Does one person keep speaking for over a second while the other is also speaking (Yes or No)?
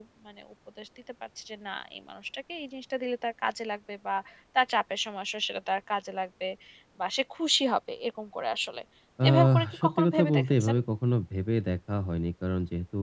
Yes